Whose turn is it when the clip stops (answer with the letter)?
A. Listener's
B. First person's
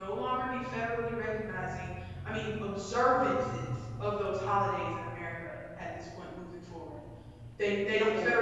B